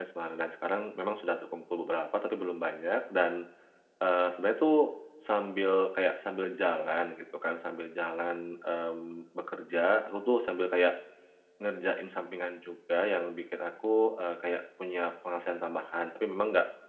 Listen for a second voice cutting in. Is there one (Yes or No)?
No